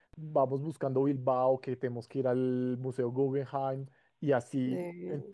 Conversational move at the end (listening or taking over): listening